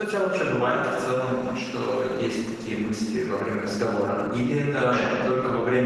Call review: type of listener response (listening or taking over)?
listening